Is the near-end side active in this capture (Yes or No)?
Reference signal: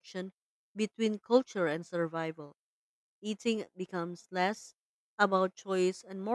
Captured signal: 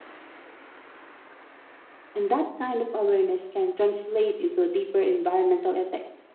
Yes